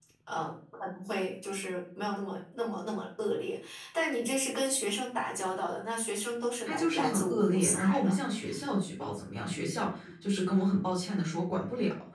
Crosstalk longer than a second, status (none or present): present